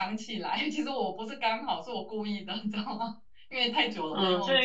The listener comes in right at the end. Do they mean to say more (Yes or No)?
Yes